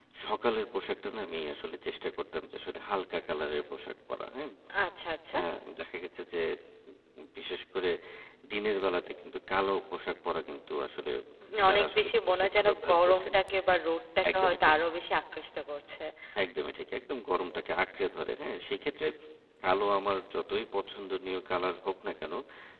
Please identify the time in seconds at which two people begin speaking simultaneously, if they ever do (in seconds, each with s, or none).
11.7 s